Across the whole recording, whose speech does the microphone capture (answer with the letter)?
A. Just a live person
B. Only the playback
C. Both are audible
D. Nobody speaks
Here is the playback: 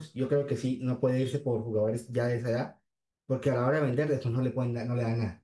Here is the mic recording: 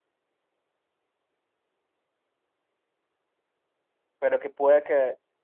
A